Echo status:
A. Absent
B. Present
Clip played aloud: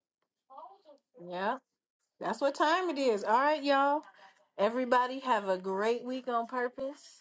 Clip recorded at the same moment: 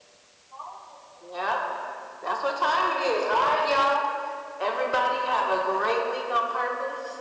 B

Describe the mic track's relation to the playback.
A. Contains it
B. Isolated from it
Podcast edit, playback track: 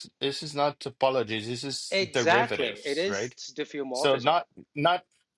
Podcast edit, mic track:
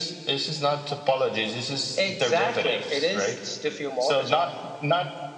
A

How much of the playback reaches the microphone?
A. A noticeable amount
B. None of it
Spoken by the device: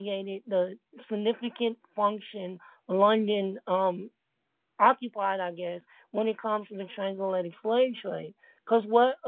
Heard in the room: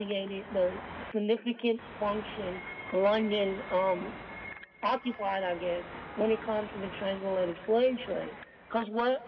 A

